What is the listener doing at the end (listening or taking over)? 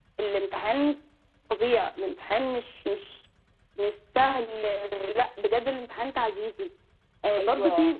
listening